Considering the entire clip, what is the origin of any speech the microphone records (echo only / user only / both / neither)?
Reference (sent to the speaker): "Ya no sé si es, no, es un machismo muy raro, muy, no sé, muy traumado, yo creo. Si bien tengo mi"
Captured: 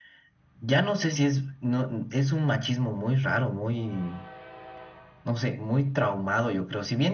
echo only